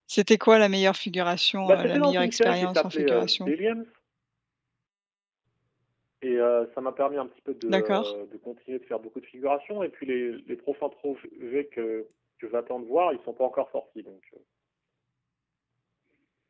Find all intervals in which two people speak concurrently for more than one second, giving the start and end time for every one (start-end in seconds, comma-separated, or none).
1.6-3.5